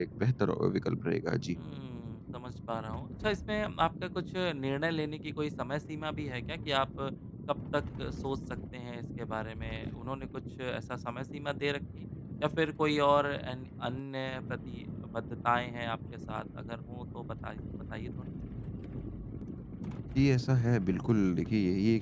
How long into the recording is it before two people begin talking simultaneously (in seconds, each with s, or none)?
none